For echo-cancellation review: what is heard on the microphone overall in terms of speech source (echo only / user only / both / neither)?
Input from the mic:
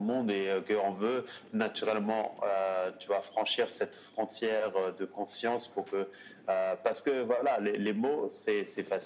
echo only